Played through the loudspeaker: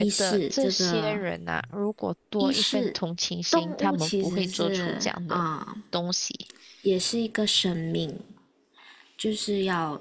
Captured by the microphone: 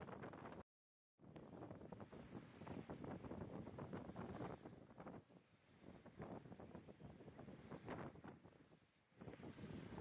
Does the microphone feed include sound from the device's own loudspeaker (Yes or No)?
No